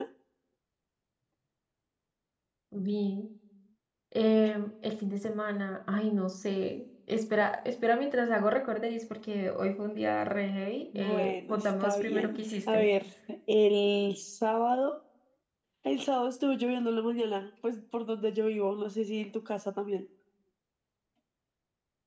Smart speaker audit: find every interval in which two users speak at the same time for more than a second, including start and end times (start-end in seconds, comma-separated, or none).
11.0-12.8